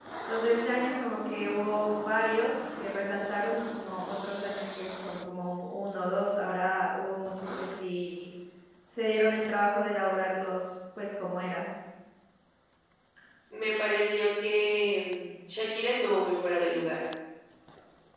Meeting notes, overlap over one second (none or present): none